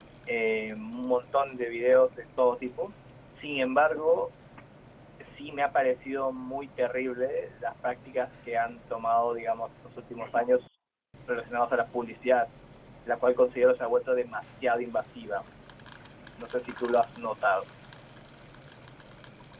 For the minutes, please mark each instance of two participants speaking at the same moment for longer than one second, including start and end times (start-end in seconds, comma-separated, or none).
none